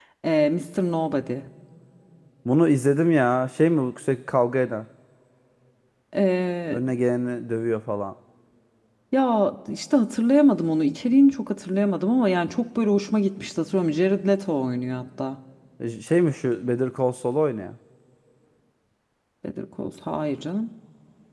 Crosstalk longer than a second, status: none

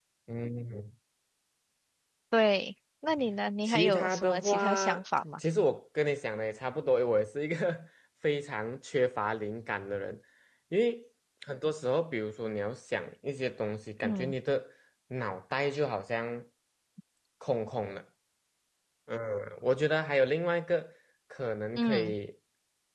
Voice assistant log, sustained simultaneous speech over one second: present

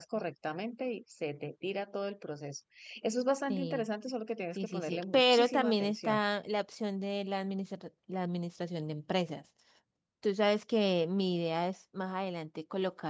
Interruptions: present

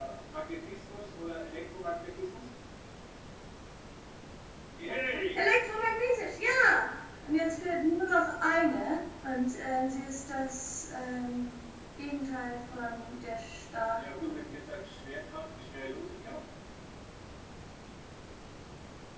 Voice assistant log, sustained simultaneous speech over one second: none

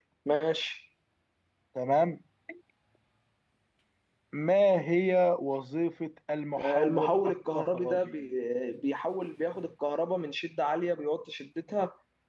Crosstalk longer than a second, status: present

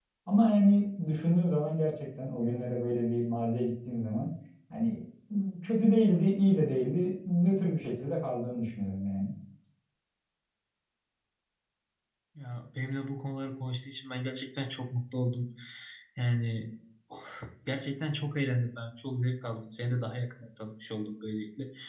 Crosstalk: none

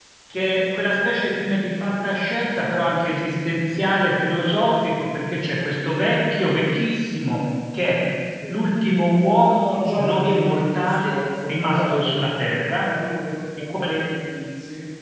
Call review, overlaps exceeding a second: present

